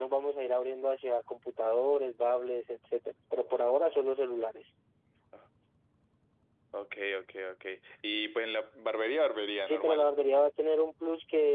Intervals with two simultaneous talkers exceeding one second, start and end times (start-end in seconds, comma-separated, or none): none